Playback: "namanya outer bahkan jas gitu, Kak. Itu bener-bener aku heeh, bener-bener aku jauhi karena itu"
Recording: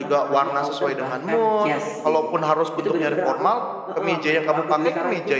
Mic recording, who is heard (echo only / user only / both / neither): both